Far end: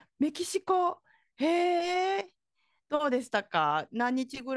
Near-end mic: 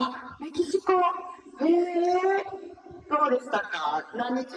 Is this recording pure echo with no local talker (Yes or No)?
Yes